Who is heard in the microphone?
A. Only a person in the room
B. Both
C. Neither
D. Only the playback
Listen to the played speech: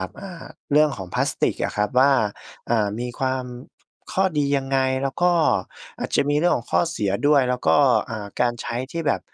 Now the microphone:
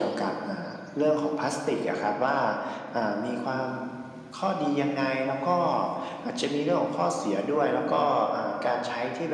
D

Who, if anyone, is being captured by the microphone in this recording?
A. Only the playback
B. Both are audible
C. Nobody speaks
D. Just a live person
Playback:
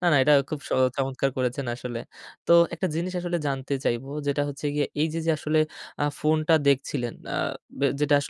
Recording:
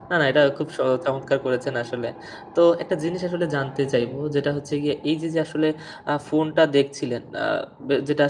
A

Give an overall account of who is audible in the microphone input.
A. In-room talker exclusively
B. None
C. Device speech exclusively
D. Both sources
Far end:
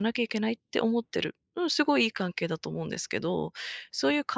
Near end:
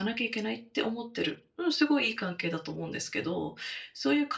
C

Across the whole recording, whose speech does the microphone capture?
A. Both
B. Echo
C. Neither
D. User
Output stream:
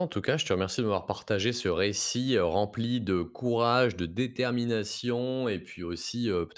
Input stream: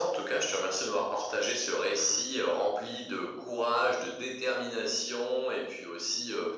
B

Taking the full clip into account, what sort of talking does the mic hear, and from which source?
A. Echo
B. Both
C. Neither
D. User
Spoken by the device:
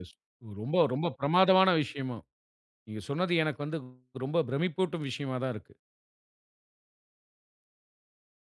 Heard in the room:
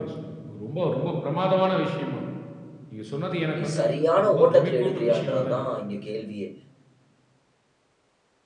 B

